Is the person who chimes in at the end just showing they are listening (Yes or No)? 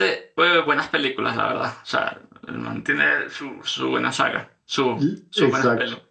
No